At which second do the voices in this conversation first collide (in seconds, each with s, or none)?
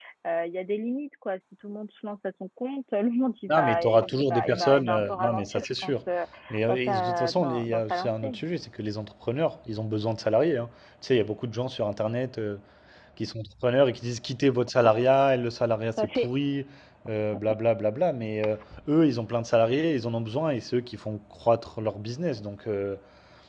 3.5 s